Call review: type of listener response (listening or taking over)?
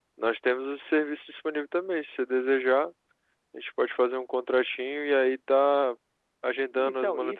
listening